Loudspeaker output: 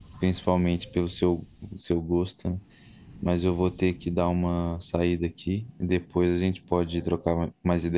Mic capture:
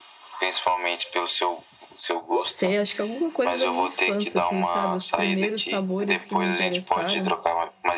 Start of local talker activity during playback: 2.3 s

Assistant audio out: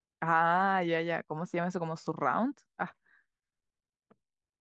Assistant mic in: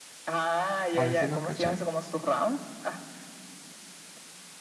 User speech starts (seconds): 0.9 s

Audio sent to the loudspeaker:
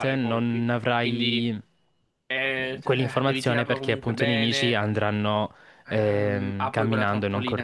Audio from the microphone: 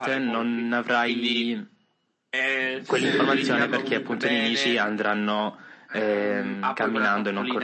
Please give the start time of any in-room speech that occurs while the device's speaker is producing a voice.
2.8 s

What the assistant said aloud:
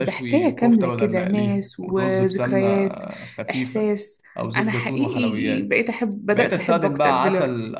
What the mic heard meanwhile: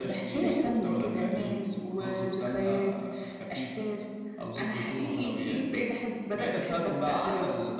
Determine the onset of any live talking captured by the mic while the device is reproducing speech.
0.4 s

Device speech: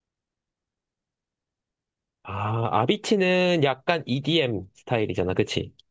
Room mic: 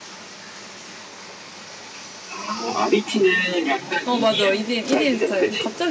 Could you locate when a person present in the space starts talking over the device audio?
4.0 s

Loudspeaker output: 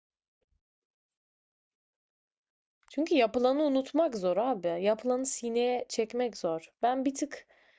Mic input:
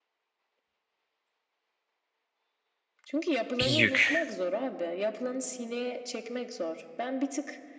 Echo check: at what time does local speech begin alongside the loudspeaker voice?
3.6 s

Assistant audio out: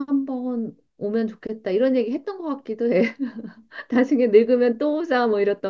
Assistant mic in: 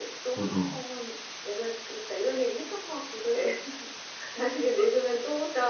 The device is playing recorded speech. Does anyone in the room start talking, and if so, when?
0.4 s

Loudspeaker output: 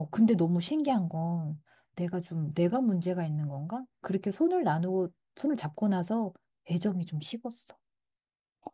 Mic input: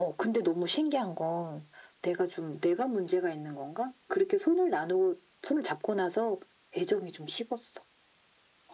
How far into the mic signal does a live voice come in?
none

